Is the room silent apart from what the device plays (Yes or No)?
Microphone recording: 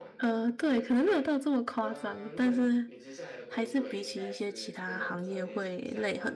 No